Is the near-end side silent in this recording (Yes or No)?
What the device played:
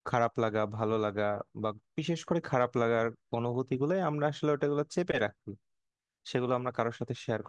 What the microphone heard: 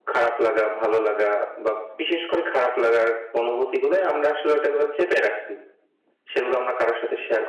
Yes